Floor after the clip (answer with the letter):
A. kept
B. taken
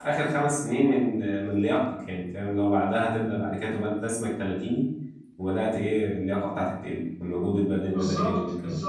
B